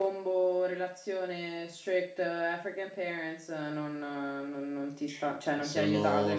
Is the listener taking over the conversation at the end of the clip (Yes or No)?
Yes